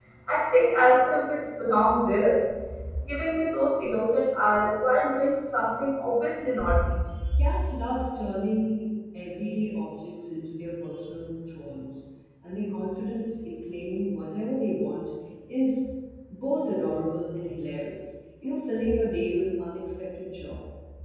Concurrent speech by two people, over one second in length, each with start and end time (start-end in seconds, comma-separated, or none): none